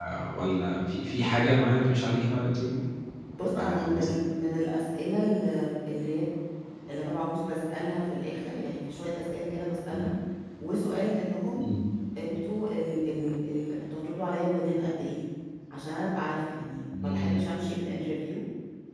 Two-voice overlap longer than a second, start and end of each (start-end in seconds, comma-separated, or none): none